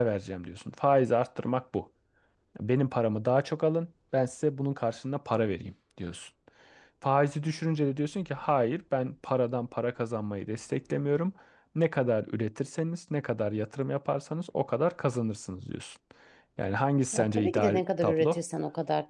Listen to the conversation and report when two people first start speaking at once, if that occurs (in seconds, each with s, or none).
17.1 s